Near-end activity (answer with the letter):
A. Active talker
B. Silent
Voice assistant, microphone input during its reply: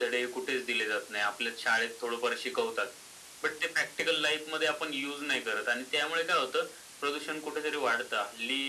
B